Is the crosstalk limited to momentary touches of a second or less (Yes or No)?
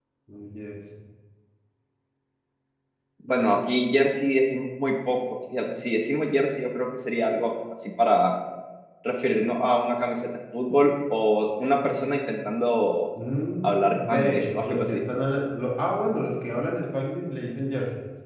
No